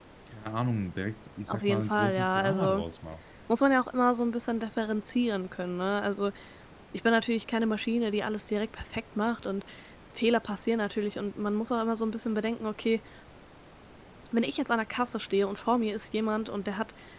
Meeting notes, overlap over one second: present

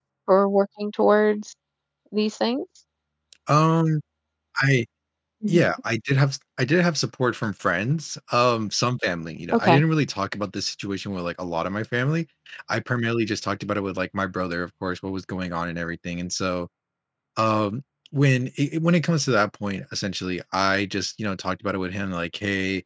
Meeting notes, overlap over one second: none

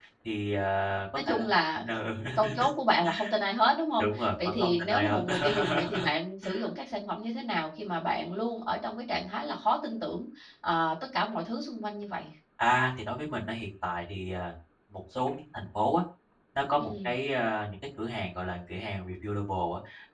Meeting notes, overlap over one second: present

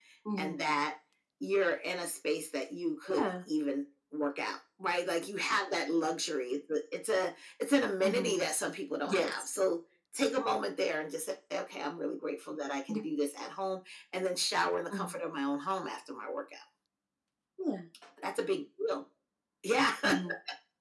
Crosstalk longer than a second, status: none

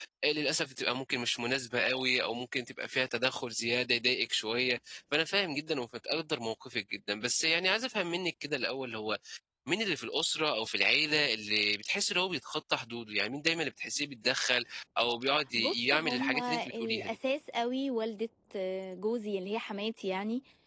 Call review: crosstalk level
present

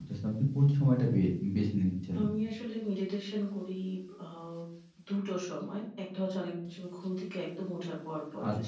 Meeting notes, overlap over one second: none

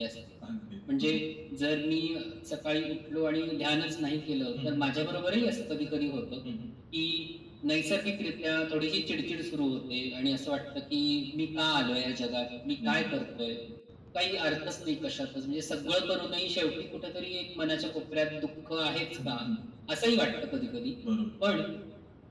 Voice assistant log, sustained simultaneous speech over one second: none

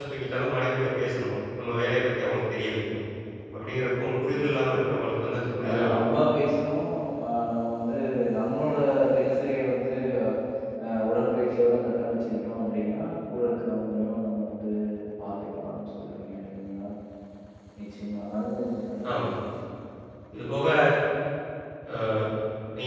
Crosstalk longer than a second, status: none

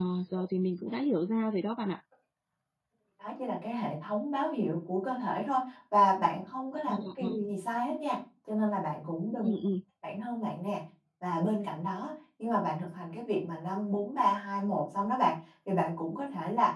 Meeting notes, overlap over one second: none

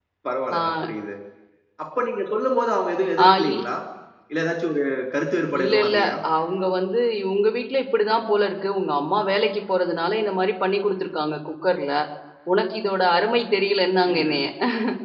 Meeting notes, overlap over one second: none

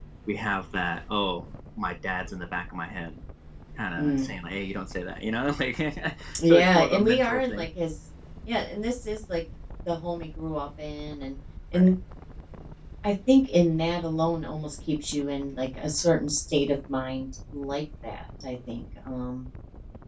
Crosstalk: present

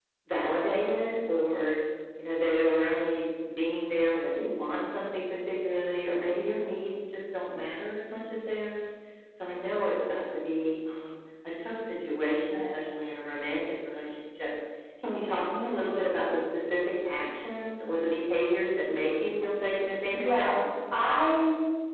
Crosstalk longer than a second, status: none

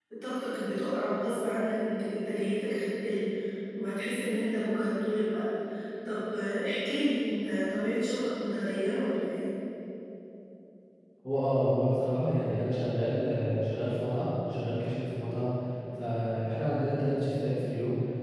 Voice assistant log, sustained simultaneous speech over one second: none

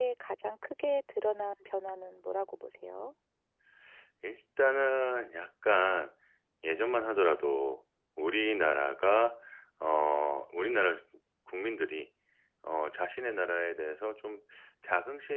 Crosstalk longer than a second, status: none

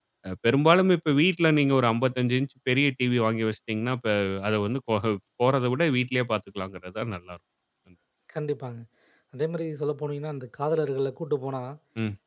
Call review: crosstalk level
none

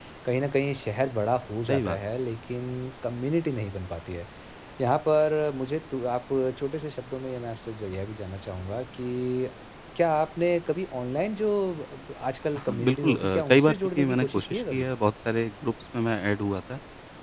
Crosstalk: present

